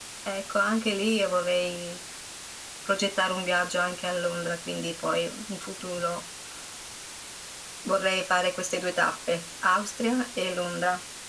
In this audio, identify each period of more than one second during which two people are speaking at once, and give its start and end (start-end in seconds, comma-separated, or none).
none